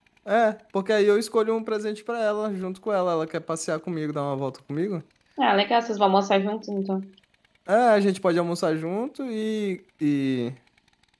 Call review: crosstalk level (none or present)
none